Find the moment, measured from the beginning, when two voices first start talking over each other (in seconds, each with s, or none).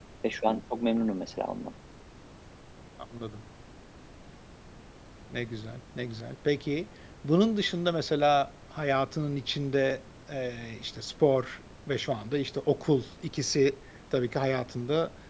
none